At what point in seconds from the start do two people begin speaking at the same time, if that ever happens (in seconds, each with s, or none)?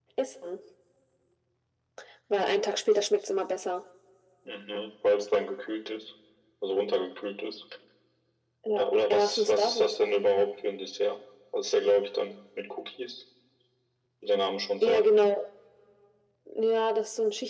8.7 s